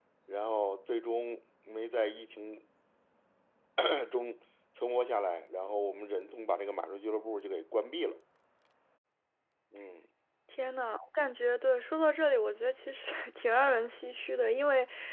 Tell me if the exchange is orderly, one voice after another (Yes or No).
Yes